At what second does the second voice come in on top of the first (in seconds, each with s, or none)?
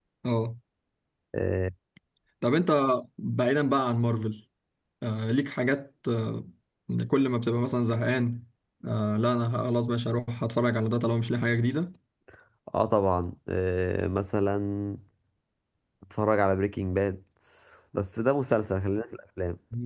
none